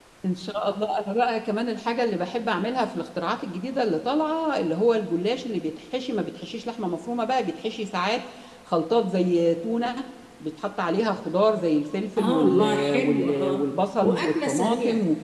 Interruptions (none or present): present